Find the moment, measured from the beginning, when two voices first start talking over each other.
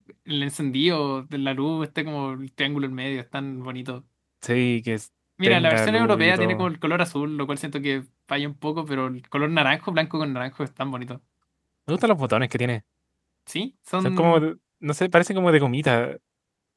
5.5 s

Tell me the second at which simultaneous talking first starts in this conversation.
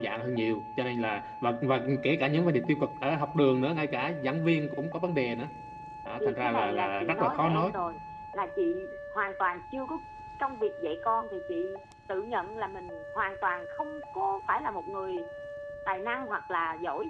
6.2 s

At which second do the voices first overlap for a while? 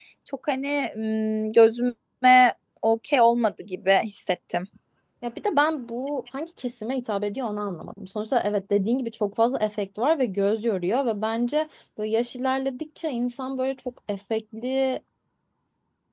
none

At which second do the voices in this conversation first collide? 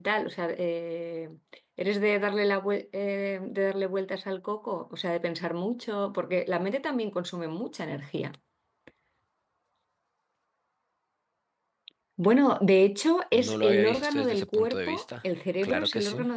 13.3 s

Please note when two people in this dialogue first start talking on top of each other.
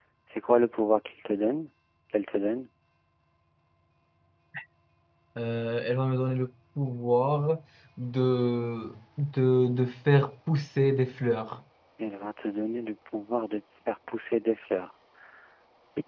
none

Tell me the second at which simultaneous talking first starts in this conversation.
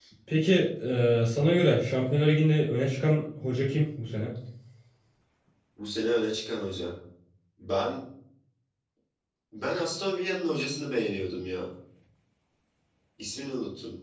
none

